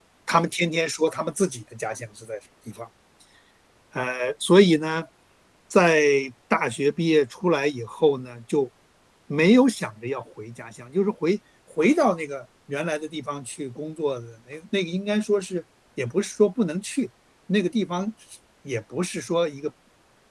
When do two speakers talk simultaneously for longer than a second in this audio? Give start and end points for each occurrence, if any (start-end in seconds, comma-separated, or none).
none